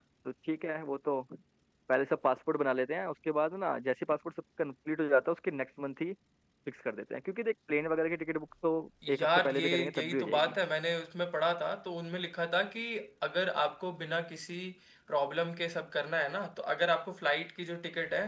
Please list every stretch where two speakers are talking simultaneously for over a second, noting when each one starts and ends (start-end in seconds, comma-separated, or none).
9.2-10.6